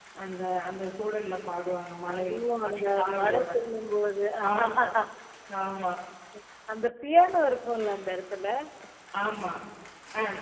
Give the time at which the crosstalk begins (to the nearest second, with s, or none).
2 s